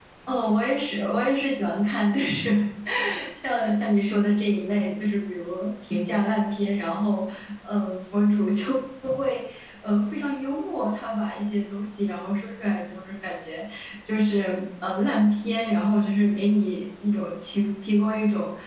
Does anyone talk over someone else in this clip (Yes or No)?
No